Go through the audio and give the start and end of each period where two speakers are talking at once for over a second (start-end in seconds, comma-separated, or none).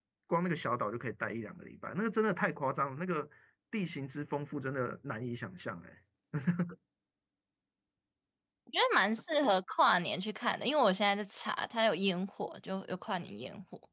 none